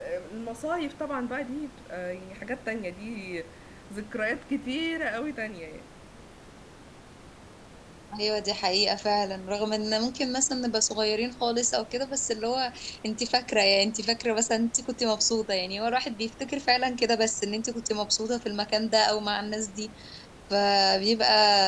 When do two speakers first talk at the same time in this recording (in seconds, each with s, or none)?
none